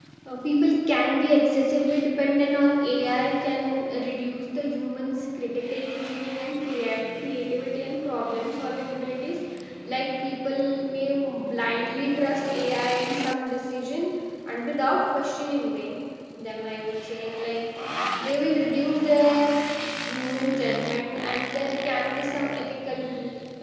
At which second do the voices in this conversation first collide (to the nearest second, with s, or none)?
none